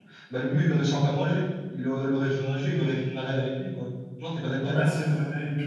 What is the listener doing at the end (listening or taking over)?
taking over